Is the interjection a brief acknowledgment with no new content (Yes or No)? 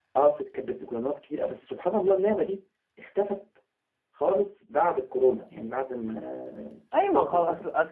No